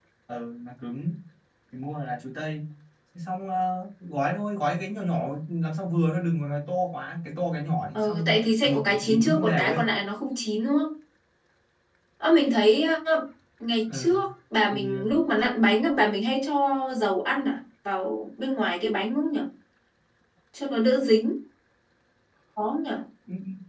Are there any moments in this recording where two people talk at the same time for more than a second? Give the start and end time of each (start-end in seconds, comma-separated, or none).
7.9-9.8